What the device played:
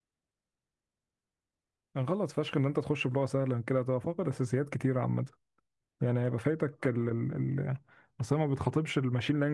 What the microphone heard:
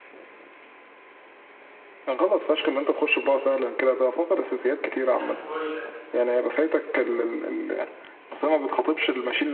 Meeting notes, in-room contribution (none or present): present